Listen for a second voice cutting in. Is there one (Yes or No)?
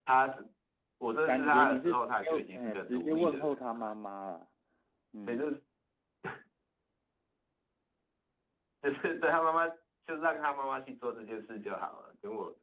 Yes